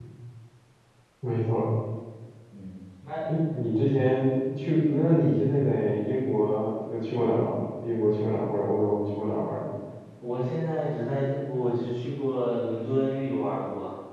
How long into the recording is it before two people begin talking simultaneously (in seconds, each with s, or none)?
none